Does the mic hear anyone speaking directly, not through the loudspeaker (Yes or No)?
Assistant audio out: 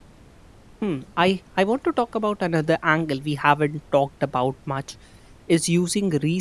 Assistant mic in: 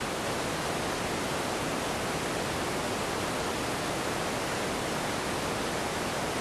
No